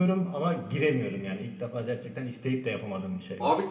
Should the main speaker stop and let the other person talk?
Yes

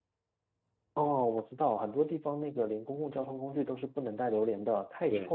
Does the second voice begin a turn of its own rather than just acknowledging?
Yes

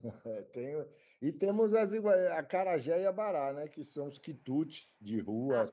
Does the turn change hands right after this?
Yes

